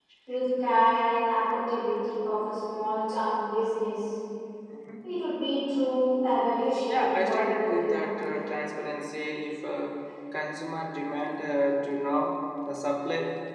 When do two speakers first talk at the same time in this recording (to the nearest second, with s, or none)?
7 s